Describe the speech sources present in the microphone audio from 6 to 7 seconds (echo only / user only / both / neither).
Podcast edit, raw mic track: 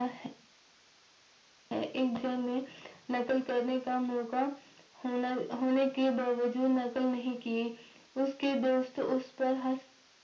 echo only